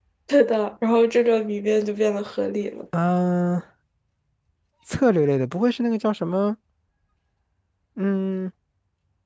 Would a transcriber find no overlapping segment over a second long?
Yes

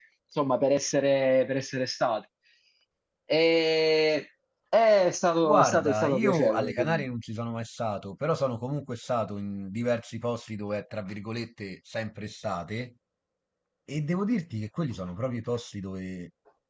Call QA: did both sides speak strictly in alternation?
No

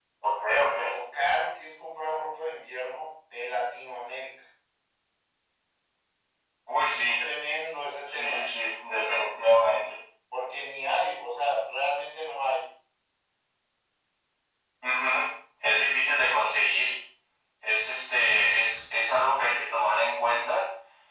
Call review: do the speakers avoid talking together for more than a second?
Yes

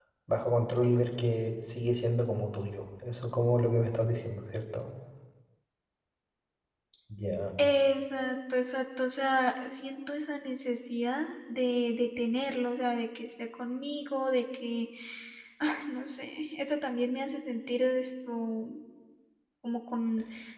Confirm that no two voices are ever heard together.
Yes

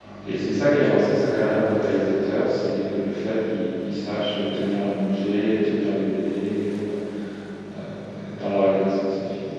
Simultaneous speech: No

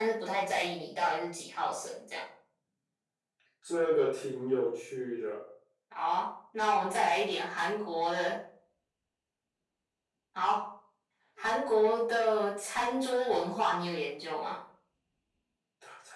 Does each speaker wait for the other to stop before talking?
Yes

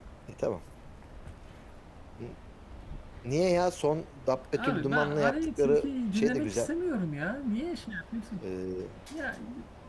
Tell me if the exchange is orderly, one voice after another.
No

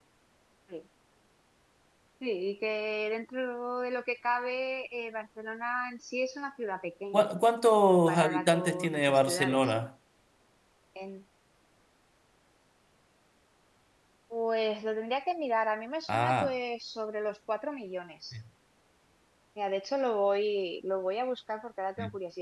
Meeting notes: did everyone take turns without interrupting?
No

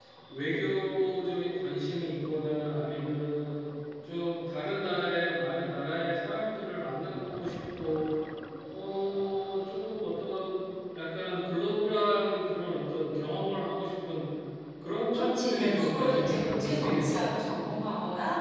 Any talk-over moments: Yes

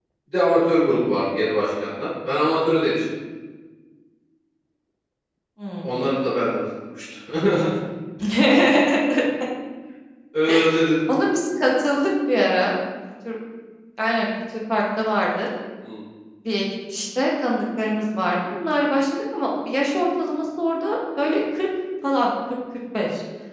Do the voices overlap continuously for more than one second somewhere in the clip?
No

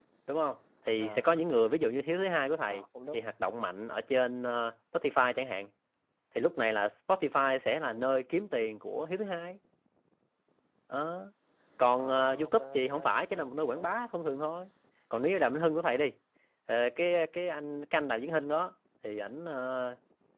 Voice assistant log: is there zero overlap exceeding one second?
No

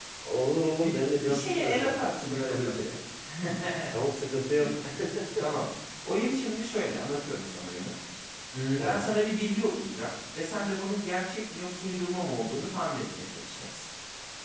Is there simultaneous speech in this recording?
Yes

